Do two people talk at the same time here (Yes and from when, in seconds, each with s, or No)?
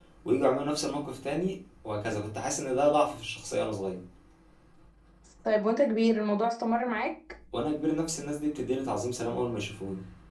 No